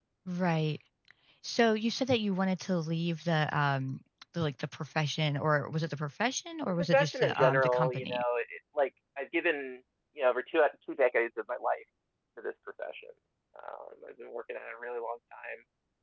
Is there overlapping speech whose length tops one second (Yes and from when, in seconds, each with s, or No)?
Yes, from 6.7 s